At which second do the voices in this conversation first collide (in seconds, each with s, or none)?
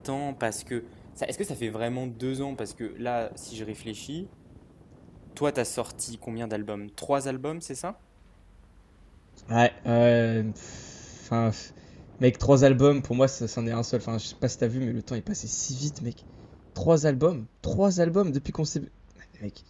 none